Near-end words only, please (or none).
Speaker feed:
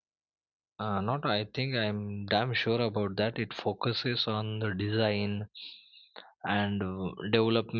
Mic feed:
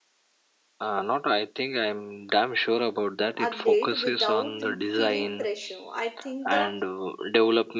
update without feeling pressure i think the